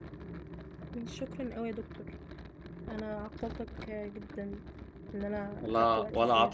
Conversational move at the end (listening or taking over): taking over